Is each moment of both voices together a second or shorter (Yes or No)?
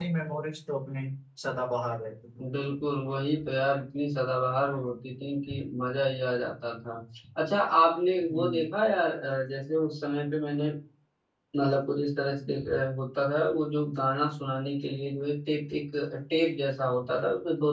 Yes